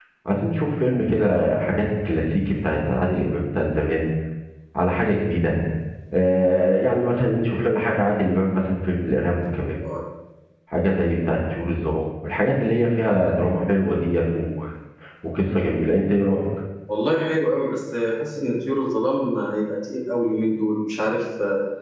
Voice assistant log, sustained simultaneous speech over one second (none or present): none